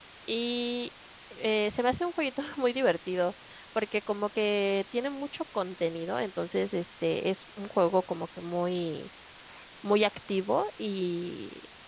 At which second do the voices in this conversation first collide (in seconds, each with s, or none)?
none